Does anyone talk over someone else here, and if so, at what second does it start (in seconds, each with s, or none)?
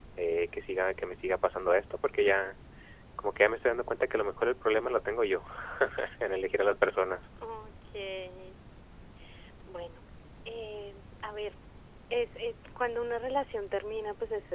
none